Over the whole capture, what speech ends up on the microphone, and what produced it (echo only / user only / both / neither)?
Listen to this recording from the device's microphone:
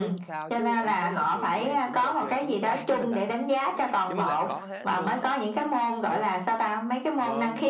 both